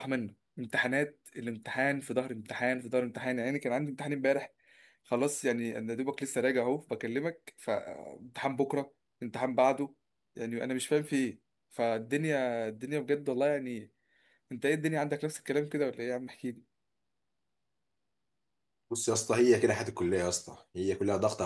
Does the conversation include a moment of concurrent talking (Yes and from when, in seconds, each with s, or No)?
No